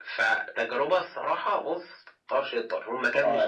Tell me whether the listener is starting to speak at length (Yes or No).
Yes